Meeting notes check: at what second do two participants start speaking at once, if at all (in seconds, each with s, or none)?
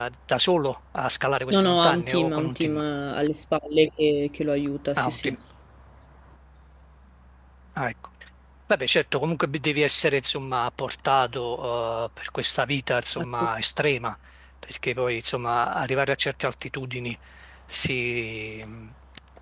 1.5 s